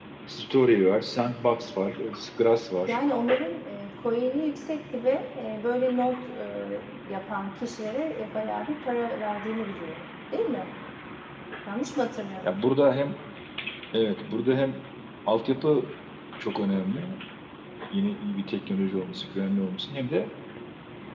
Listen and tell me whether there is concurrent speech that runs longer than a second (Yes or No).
No